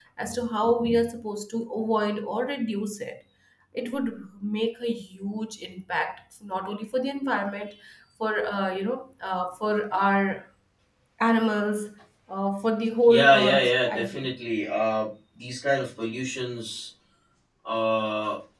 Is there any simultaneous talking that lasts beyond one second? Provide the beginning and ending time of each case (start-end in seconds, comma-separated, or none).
13.0-14.3